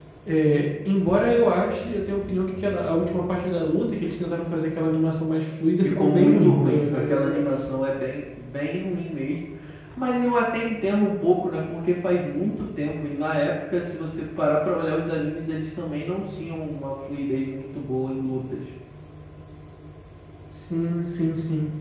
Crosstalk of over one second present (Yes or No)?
Yes